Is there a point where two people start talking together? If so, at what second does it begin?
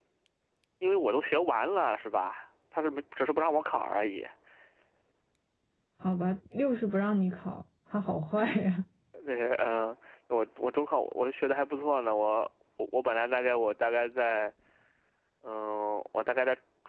none

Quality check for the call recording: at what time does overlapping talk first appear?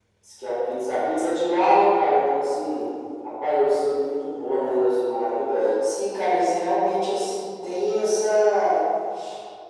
none

